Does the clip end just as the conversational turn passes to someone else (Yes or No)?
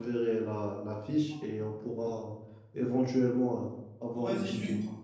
Yes